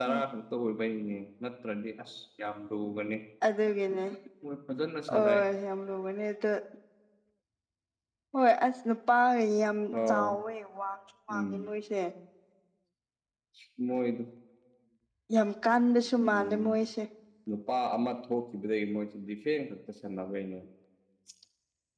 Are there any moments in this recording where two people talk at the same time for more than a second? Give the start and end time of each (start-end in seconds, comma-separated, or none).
none